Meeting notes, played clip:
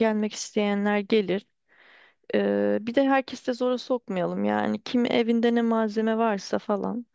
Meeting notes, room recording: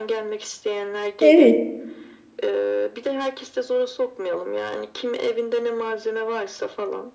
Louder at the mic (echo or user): user